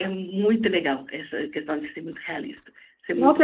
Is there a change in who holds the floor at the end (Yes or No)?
Yes